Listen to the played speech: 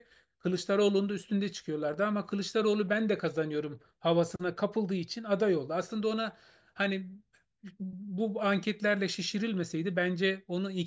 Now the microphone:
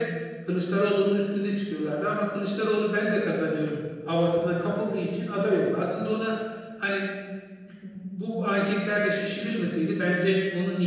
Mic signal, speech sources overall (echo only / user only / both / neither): echo only